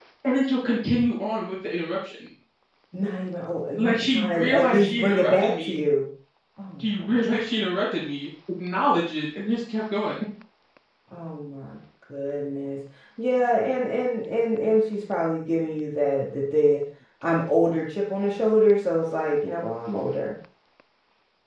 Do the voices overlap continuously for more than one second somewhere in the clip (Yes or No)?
Yes